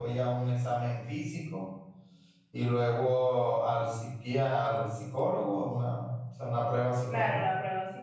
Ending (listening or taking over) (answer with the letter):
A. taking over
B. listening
A